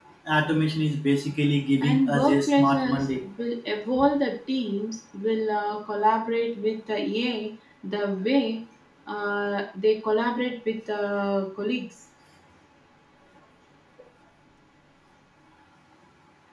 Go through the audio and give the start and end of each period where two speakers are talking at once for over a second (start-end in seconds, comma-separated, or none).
1.8-3.1